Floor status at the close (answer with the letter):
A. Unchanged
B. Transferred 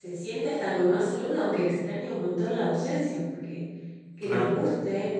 A